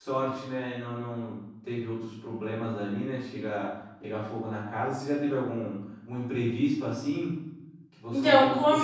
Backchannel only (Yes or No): No